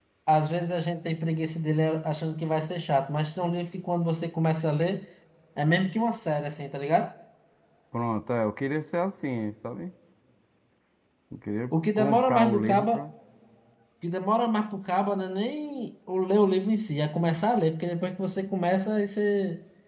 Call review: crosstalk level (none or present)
present